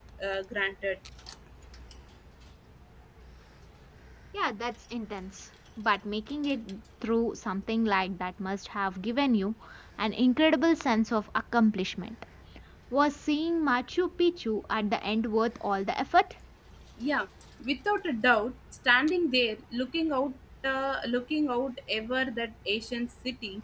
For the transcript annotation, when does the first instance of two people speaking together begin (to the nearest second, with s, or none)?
none